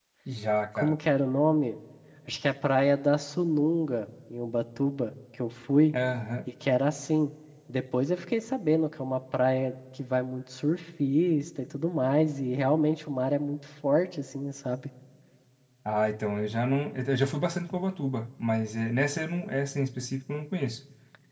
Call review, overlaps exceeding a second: none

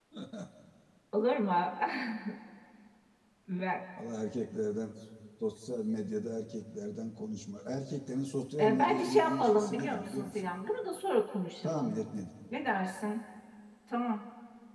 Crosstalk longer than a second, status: present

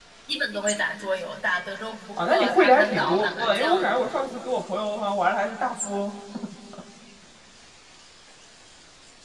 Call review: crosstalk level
present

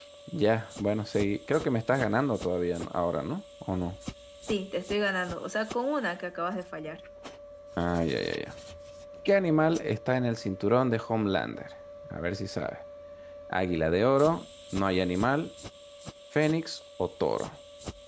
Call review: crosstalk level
none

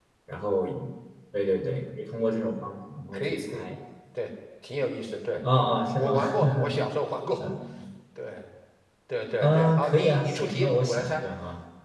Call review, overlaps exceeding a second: present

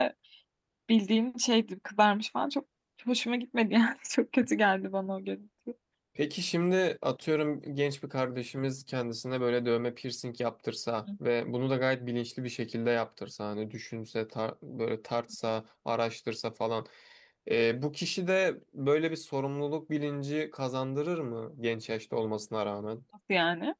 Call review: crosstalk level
none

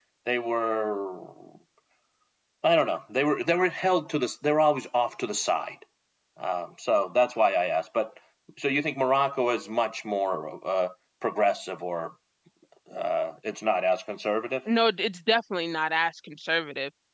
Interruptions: none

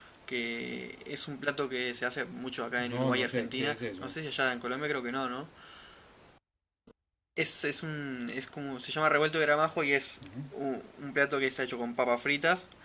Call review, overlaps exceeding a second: present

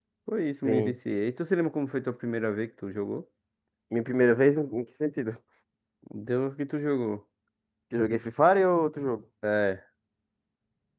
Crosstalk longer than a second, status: none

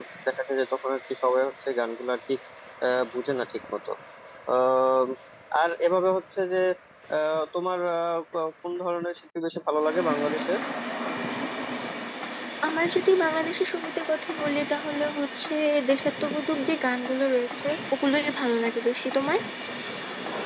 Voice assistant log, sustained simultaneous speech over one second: none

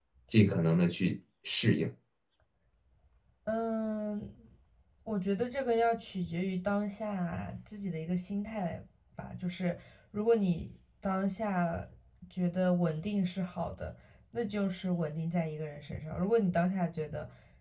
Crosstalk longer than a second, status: none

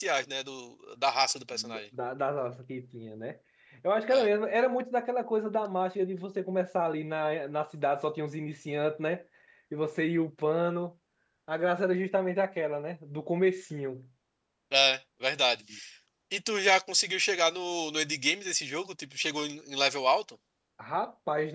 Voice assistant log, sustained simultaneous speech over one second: none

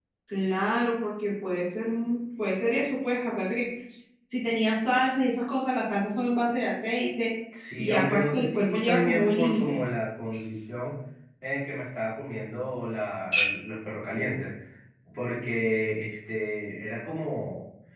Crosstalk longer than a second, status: present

